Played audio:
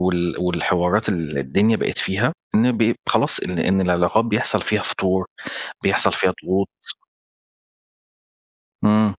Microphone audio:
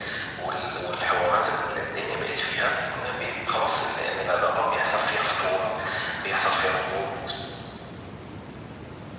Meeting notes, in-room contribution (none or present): none